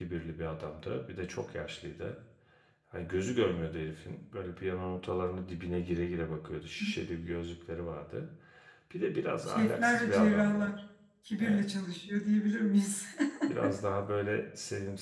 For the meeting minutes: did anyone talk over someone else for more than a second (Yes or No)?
Yes